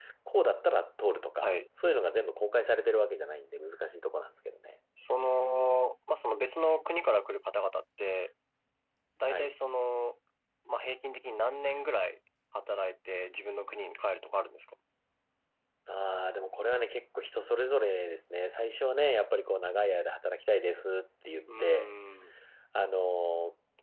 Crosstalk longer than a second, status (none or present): none